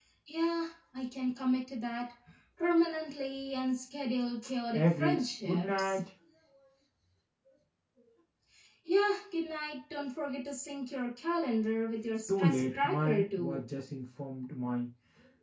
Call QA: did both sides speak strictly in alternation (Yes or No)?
No